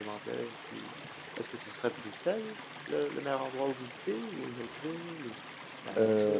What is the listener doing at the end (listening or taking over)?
taking over